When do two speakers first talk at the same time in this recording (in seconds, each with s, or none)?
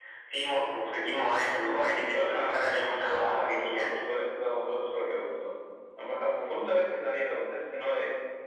1.6 s